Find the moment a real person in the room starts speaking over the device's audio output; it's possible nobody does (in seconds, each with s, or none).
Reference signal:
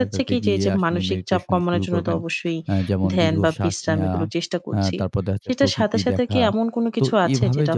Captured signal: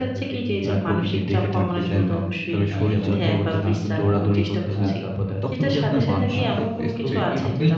0.7 s